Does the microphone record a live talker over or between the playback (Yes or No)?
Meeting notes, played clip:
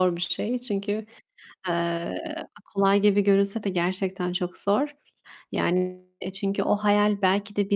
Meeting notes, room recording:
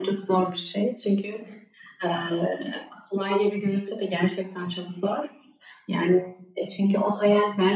No